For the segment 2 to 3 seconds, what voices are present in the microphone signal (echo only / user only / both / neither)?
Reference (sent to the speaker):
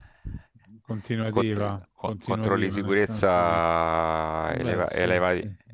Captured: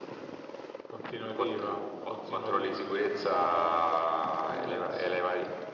echo only